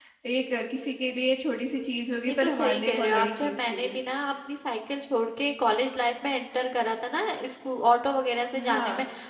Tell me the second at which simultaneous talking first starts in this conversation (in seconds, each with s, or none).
2.3 s